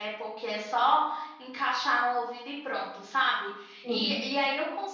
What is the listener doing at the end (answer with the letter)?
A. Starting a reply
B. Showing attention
B